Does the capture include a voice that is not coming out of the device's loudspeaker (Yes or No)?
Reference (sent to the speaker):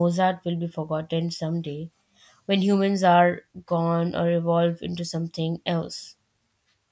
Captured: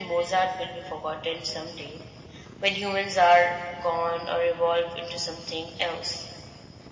No